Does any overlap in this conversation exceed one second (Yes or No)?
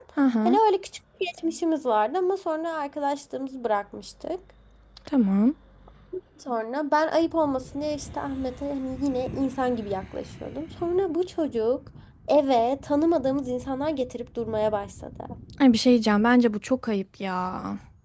No